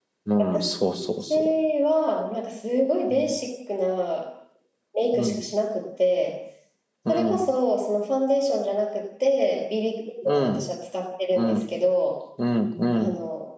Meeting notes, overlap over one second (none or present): none